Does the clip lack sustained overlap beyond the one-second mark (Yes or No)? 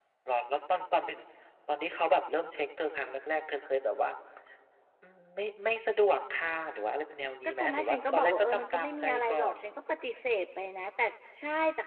No